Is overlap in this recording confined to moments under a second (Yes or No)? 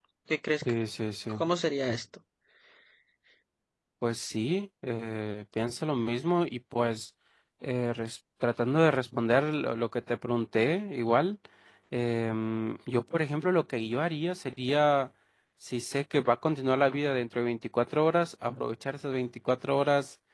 Yes